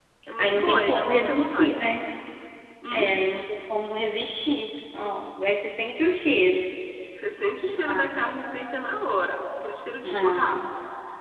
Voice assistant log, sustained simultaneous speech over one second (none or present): present